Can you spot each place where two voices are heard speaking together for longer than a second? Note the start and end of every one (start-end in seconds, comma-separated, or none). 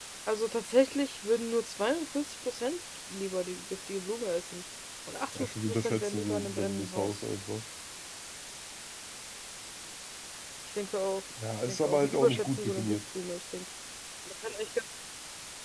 5.3-7.2, 11.7-12.9